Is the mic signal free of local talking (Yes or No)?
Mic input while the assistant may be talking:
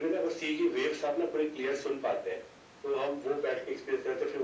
Yes